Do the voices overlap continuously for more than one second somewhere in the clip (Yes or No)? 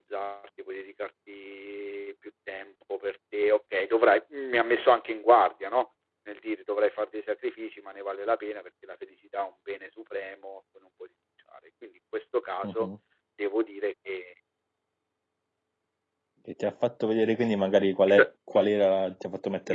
No